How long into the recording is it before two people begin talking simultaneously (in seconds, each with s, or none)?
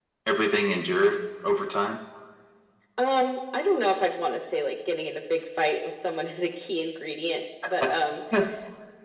none